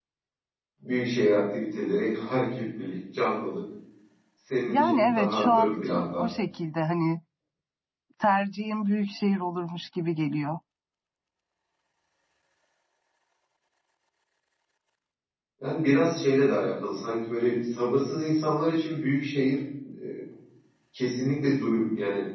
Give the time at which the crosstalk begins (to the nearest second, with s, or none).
5 s